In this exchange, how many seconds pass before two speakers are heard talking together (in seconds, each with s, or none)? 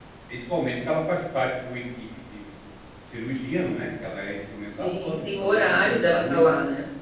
4.7 s